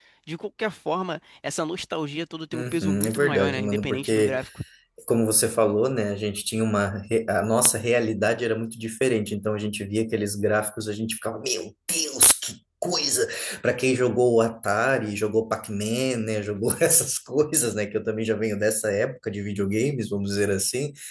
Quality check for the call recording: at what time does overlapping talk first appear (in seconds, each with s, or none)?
2.5 s